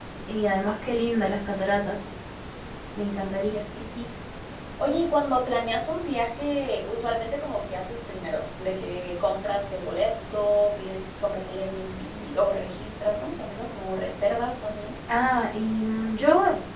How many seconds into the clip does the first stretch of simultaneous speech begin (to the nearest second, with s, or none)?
none